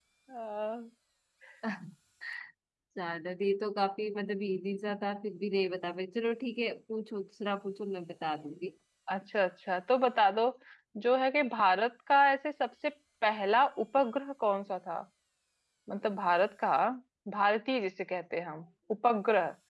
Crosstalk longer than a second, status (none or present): none